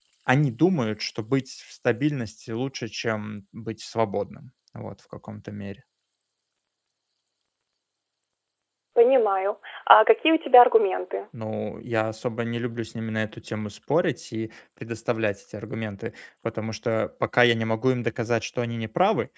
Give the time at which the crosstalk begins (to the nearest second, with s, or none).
none